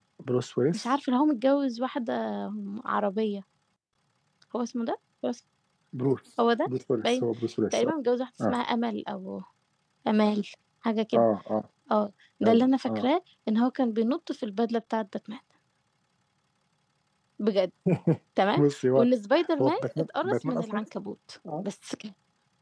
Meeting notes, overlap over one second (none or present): present